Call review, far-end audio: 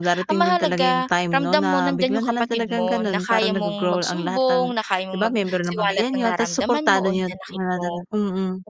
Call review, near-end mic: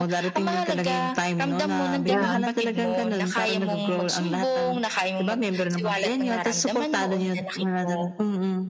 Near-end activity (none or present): present